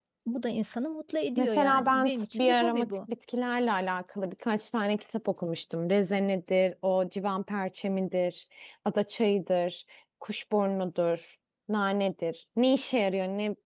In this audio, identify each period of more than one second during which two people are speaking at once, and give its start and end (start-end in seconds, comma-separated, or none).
1.4-2.9